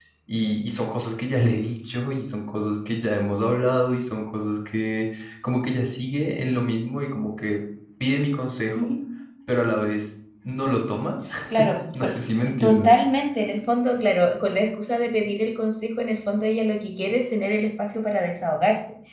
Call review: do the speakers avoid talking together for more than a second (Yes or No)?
Yes